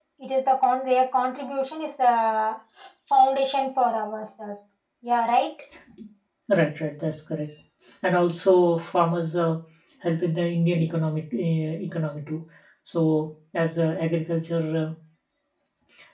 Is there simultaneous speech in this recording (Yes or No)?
No